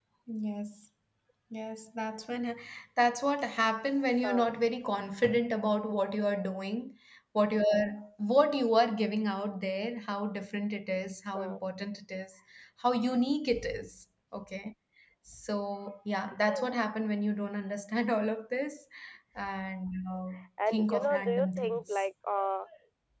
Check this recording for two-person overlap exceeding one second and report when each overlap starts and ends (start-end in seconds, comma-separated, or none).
20.7-22.0